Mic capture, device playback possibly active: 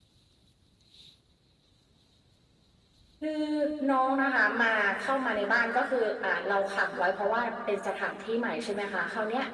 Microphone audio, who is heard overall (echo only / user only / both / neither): echo only